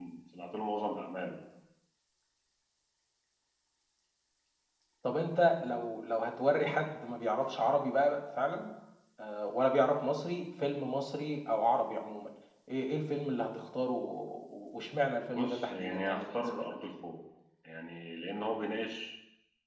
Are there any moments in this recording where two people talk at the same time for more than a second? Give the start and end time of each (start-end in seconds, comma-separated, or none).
15.3-16.7